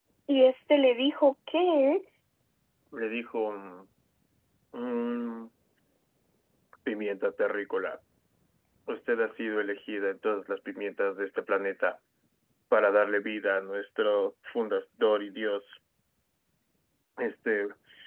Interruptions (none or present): none